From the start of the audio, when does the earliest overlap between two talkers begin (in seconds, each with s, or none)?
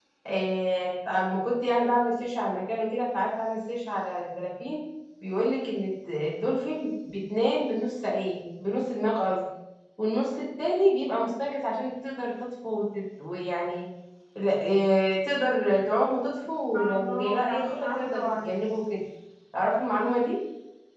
16.7 s